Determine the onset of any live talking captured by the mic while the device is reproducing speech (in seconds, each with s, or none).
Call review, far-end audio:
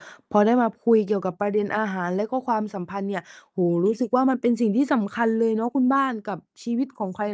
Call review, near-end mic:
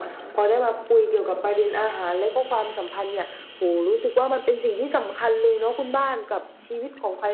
none